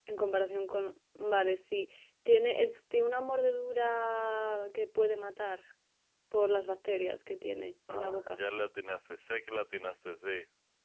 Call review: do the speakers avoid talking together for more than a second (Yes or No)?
Yes